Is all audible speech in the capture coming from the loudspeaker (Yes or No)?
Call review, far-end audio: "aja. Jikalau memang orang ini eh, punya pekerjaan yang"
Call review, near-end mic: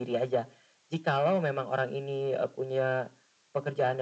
Yes